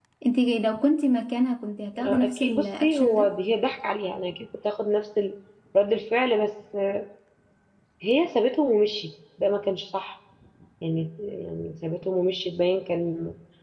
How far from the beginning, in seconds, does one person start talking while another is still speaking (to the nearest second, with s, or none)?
2 s